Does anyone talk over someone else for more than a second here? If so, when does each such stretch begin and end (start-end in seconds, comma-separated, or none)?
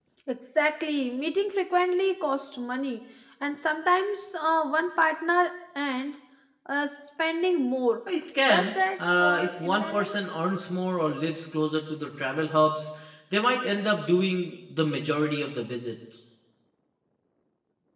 8.5-10.1